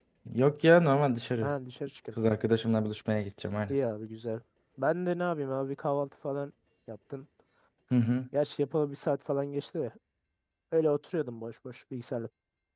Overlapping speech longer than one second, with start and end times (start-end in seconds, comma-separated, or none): none